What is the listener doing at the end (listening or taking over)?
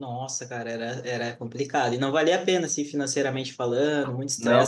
listening